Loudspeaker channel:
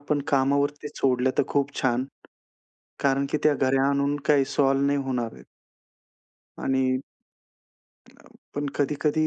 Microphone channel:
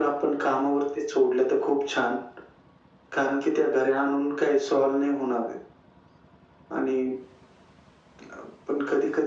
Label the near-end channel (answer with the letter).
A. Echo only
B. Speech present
A